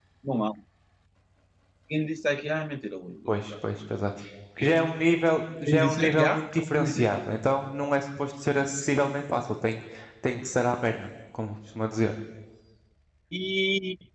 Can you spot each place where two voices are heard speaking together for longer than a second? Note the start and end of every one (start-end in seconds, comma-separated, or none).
5.6-7.0